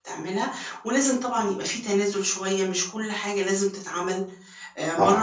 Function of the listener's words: listening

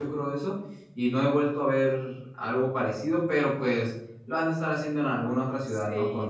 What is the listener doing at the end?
taking over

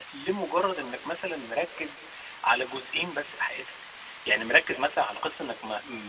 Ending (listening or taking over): listening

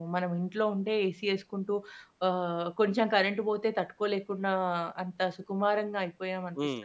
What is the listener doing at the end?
listening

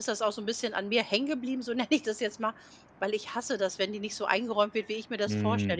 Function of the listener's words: listening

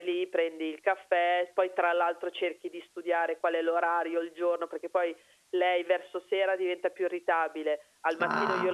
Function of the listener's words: listening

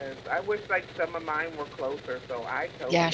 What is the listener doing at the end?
taking over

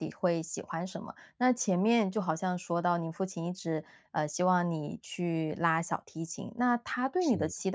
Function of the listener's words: listening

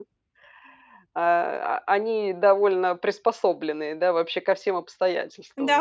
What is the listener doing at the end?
taking over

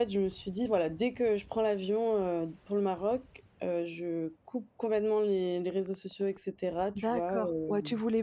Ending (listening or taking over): taking over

